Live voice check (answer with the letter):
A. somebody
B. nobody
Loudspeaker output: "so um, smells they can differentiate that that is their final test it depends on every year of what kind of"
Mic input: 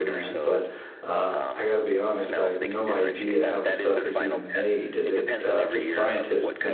A